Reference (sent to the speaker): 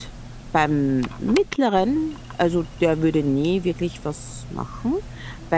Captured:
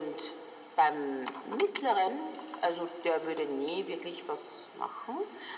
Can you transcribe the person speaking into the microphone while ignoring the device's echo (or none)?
none